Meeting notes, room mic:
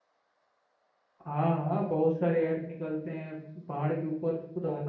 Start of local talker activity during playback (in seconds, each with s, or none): 1.2 s